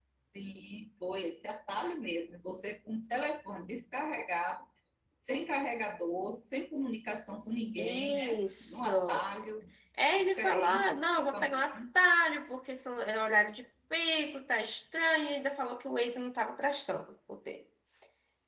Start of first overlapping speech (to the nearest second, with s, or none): 8 s